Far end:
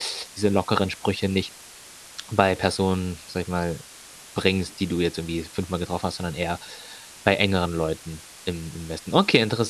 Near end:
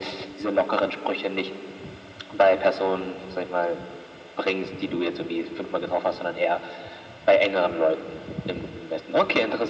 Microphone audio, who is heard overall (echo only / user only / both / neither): echo only